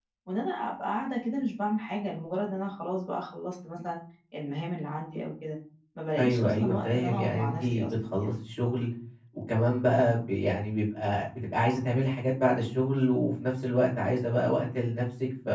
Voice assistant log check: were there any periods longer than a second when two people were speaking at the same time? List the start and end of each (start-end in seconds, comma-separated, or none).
6.2-8.3